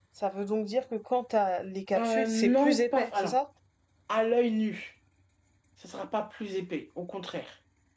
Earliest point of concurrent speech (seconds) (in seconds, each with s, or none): 2.0 s